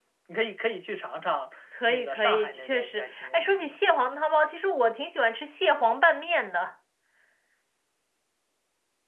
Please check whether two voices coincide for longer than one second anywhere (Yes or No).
Yes